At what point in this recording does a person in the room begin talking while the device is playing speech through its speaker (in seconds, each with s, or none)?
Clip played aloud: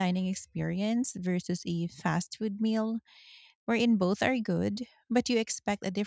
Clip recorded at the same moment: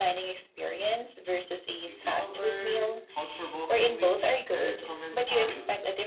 1.8 s